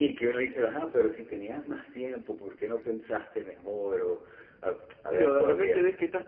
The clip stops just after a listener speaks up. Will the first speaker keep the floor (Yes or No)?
No